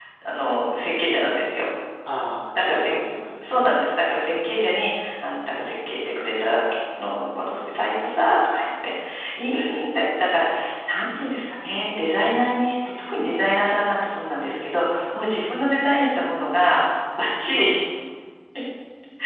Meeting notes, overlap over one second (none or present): none